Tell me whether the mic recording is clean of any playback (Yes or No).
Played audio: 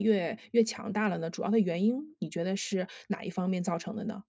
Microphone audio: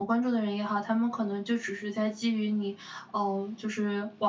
Yes